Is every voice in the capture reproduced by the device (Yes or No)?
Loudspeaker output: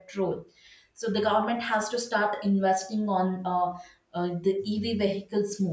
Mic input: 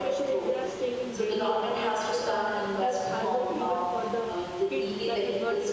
No